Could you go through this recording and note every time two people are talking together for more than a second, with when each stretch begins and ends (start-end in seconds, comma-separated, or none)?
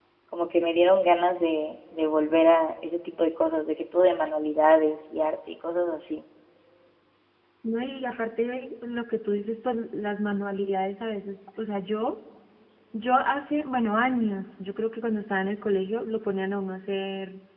none